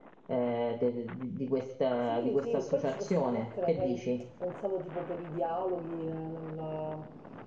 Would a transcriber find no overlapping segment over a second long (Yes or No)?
No